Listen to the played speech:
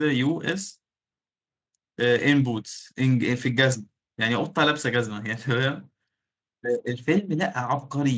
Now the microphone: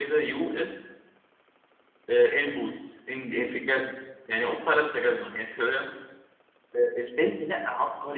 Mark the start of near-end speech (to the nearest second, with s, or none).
none